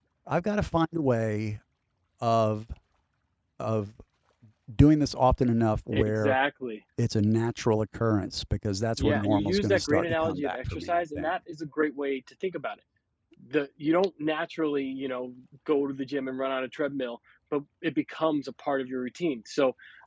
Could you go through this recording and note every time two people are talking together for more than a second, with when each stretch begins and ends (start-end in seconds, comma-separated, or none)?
9.0-11.3